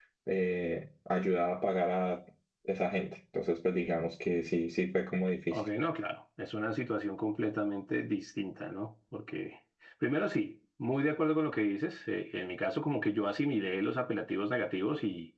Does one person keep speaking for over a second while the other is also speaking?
No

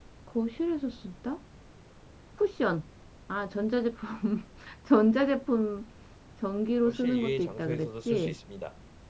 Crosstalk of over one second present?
Yes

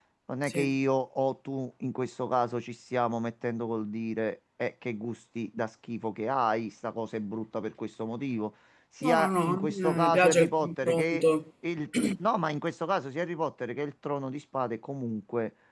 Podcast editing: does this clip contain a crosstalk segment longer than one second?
Yes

